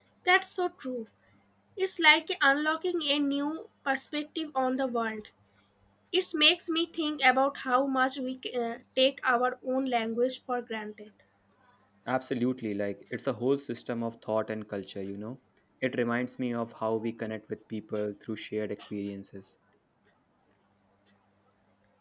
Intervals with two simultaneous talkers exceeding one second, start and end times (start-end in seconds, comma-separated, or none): none